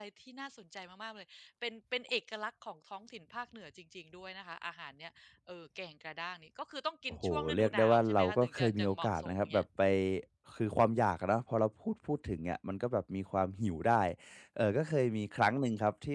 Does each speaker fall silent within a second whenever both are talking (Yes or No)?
No